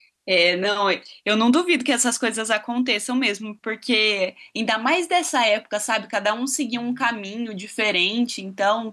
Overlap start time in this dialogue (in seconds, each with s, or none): none